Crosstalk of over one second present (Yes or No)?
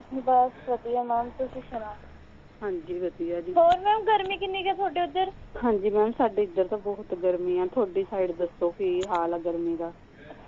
No